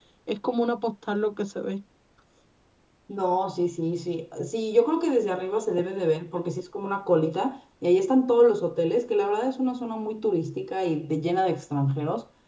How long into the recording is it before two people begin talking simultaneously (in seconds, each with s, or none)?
none